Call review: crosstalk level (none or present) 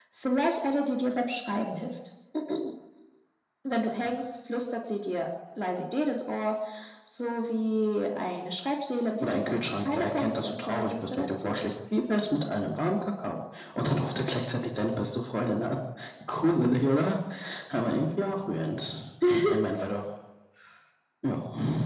present